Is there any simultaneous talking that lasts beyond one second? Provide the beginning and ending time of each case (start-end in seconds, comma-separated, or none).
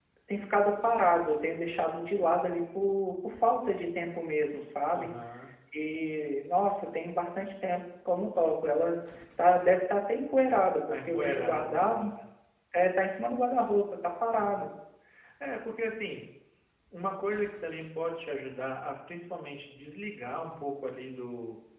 10.9-12.1